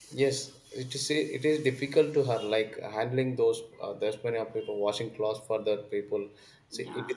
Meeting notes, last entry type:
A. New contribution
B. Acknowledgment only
A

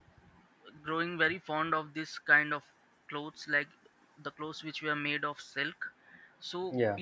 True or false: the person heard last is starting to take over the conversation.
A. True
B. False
B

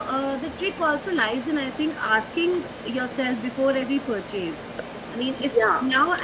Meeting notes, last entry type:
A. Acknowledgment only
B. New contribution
A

